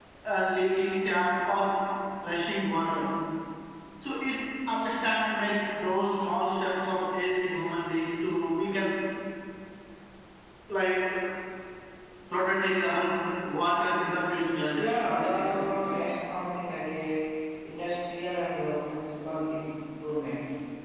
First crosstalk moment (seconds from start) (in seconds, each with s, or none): 14.7 s